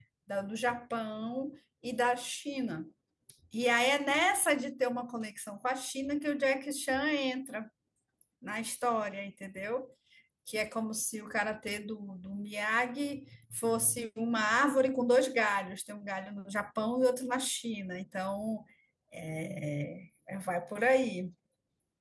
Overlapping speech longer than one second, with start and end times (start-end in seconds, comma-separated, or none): none